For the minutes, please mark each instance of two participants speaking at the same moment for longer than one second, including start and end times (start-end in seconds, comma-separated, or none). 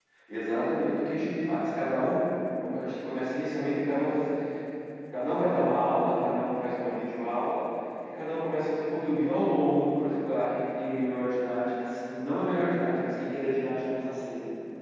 none